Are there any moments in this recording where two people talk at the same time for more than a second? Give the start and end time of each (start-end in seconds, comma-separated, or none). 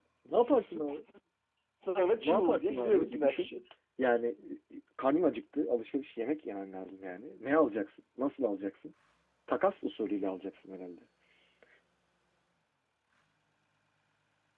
2.2-3.5